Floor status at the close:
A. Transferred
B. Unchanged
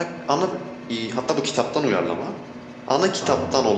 B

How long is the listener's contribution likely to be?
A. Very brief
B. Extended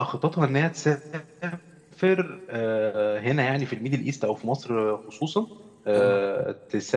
A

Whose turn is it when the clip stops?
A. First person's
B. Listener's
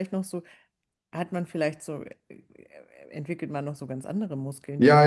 B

